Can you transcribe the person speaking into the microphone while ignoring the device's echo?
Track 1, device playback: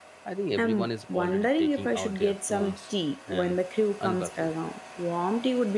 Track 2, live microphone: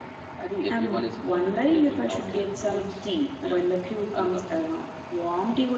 none

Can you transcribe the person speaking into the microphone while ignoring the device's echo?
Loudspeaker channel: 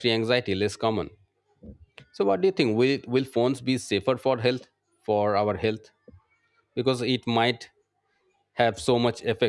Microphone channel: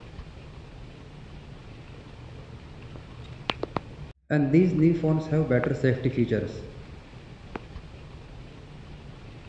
and these new phones have better safety features.

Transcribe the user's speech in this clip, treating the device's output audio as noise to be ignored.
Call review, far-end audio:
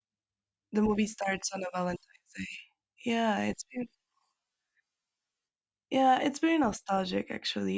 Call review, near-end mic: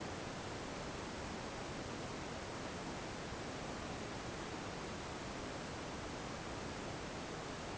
none

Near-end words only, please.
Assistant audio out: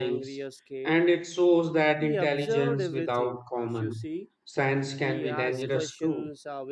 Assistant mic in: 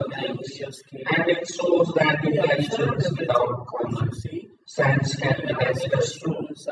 none

